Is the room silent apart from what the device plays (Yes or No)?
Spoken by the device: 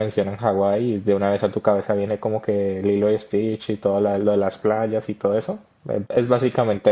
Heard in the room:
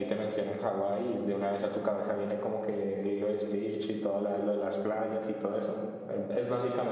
Yes